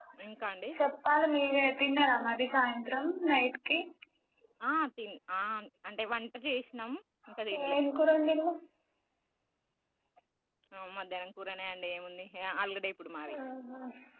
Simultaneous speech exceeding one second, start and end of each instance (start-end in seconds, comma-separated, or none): none